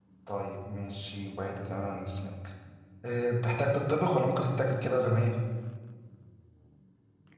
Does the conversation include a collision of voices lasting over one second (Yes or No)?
No